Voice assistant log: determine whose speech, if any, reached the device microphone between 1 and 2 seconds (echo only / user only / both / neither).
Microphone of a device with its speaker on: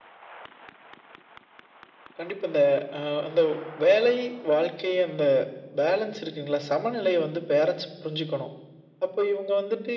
neither